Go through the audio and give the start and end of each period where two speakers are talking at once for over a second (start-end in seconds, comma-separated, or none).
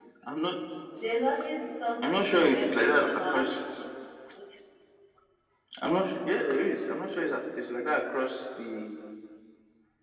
2.0-3.4